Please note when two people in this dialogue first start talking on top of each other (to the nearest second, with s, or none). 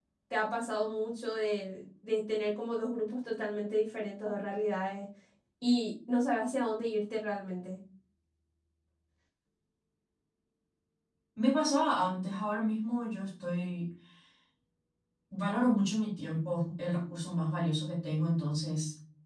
none